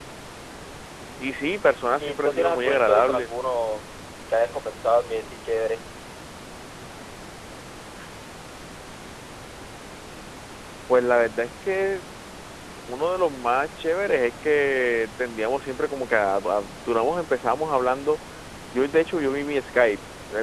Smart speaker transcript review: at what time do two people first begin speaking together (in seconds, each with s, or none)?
2.0 s